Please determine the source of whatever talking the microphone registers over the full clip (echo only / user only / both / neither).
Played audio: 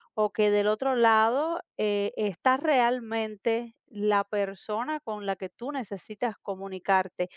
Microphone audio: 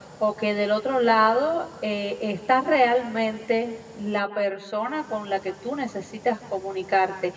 echo only